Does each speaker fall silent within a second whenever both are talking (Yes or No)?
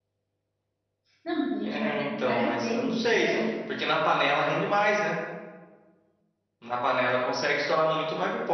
No